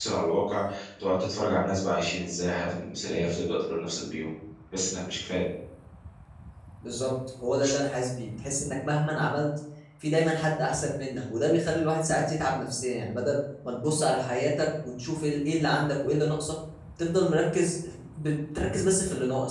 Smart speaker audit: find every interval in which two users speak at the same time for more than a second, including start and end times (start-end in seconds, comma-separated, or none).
none